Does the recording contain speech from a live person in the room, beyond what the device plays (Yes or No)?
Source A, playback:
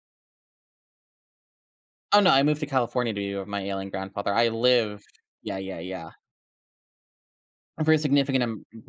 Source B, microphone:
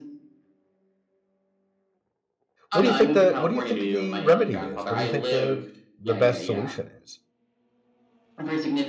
Yes